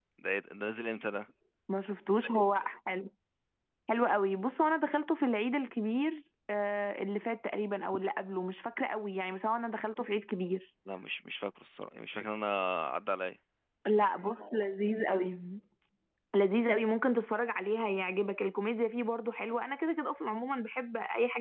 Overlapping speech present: No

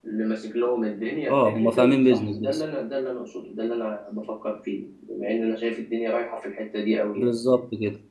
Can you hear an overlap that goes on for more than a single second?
Yes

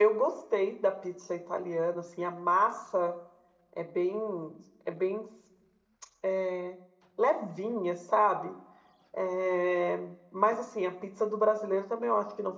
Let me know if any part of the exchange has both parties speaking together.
No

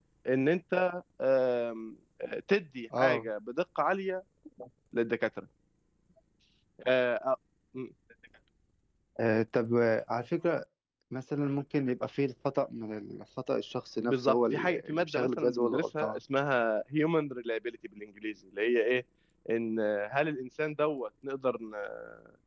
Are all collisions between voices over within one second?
No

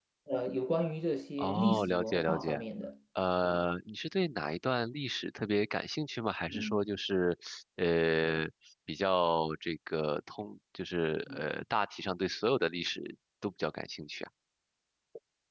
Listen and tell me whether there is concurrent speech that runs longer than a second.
Yes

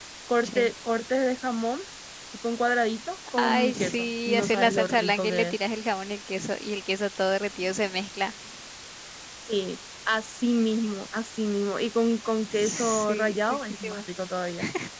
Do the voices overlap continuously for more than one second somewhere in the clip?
Yes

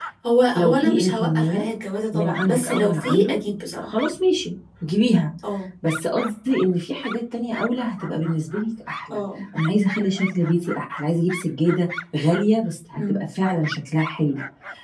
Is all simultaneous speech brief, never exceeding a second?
No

